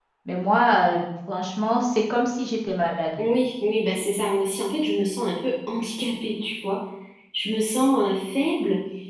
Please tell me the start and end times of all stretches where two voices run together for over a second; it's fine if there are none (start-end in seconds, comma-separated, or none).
none